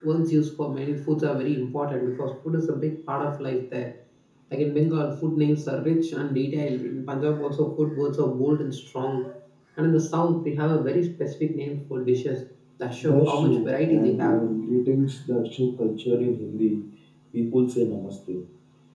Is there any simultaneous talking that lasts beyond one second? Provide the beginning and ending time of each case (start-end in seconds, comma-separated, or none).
13.0-14.4